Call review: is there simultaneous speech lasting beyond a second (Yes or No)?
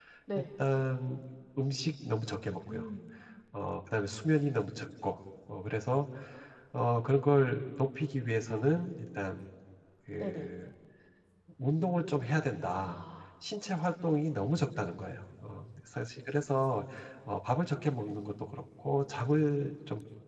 No